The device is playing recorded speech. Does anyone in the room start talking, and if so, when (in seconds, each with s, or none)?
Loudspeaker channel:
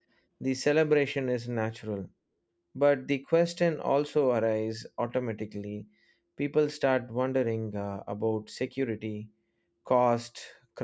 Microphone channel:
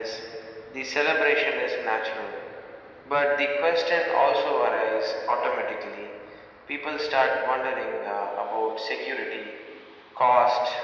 none